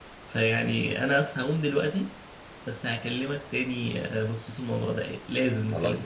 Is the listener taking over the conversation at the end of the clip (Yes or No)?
Yes